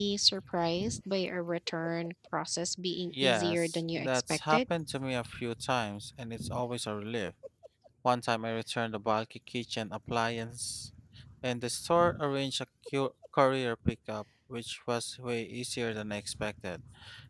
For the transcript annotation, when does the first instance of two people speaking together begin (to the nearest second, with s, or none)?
3 s